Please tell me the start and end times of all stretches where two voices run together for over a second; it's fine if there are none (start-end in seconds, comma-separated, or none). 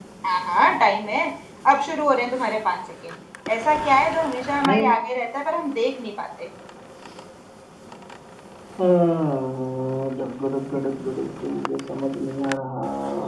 none